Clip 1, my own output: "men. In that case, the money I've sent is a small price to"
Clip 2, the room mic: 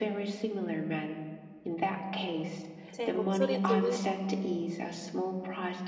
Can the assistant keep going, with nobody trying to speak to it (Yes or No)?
No